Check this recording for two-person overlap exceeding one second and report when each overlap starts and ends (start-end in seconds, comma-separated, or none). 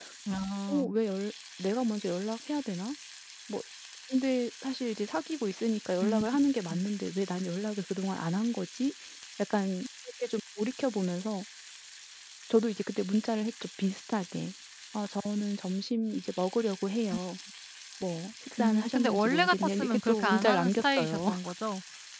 18.6-21.2